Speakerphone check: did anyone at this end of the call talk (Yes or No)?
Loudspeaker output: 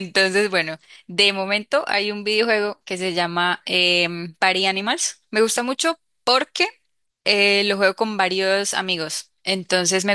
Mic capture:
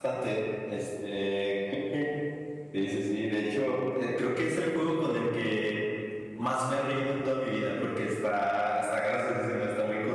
Yes